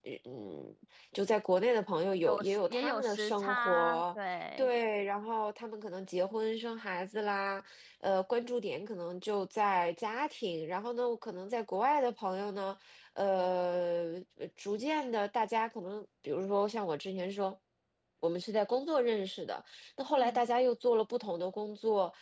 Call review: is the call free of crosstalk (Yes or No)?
No